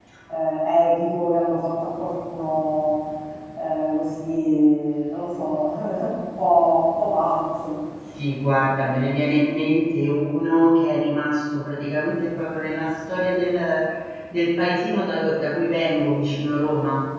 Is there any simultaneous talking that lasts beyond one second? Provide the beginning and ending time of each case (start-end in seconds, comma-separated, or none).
none